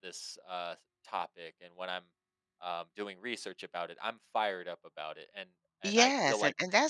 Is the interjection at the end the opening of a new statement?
Yes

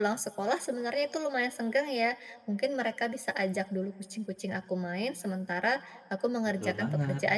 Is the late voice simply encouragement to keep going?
Yes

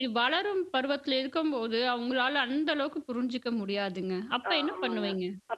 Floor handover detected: Yes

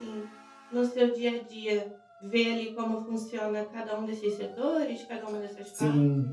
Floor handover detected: Yes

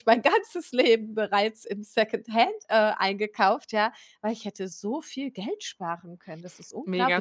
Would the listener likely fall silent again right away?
No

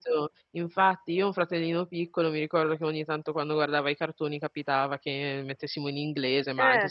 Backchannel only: Yes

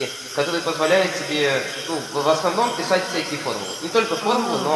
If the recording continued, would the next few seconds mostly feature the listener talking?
No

